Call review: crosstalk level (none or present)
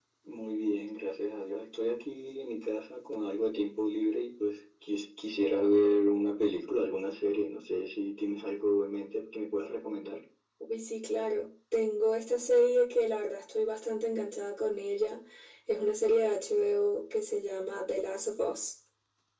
none